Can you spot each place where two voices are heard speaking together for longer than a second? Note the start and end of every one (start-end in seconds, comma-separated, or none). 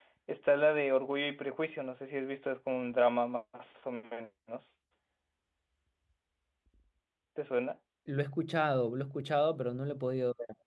none